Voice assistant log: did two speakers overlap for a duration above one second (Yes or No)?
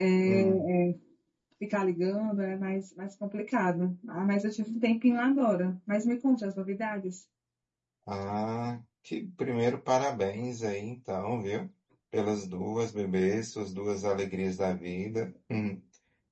No